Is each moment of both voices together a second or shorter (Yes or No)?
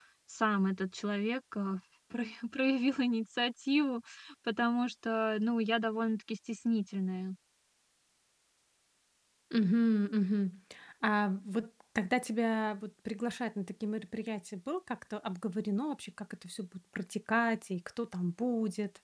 Yes